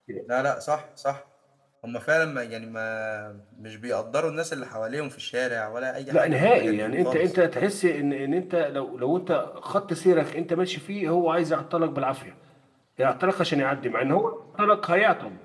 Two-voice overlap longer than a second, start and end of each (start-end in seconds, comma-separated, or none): 6.1-7.3